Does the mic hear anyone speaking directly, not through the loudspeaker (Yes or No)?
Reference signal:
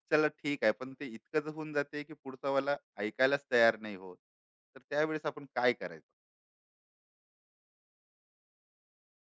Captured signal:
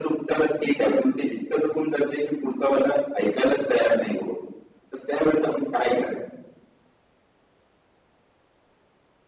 No